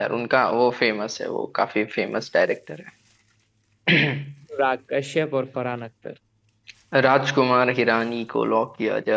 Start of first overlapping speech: none

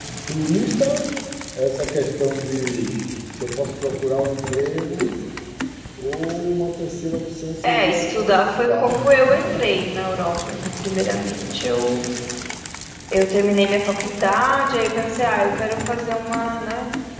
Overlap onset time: 7.6 s

